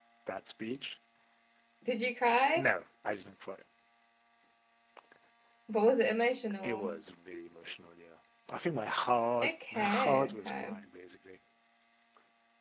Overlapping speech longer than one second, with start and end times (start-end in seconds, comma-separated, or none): 9.4-10.8